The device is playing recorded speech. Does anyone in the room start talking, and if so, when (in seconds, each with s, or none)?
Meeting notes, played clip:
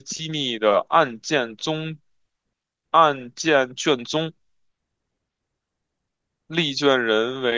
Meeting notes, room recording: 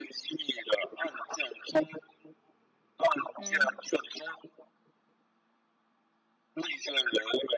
3.4 s